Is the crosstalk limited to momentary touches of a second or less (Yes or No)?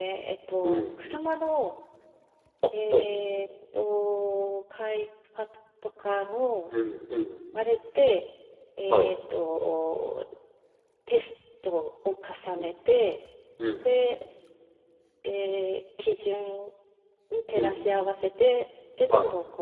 Yes